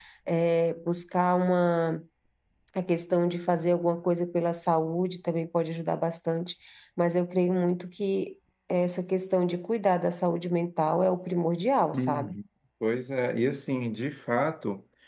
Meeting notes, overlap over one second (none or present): none